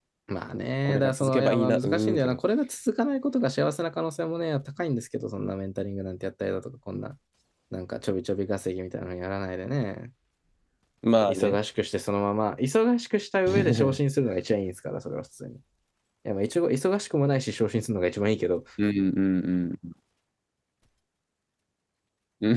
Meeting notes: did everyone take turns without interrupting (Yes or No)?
No